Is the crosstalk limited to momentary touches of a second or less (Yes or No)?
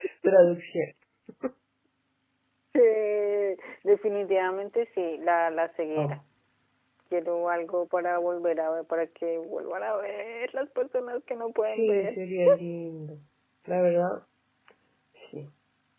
Yes